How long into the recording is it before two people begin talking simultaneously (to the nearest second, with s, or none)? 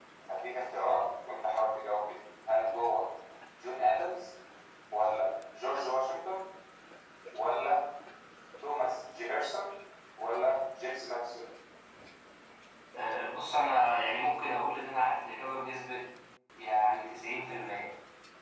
none